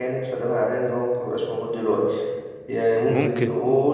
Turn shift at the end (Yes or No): No